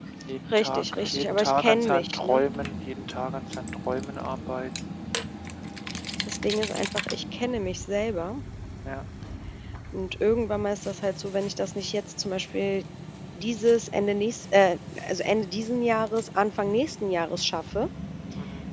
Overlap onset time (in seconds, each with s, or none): 0.5 s